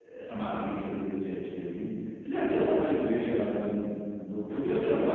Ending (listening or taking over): taking over